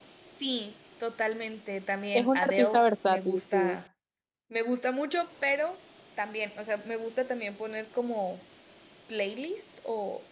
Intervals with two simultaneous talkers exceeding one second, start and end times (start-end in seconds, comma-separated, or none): 2.1-3.8